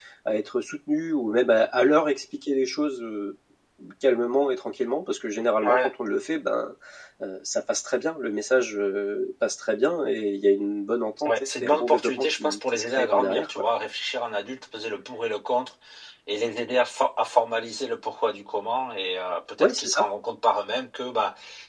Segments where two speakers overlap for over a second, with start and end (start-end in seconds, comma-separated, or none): 11.2-13.6